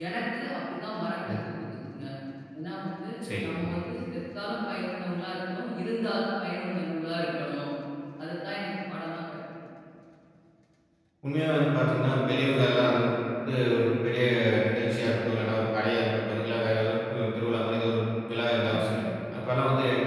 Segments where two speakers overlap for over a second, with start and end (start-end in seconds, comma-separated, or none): none